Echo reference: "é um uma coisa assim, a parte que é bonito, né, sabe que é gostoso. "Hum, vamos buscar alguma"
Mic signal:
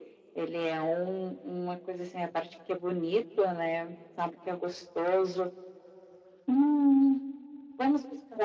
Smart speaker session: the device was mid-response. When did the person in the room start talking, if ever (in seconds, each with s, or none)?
none